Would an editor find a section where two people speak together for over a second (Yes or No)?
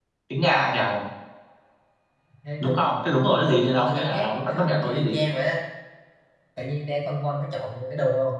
Yes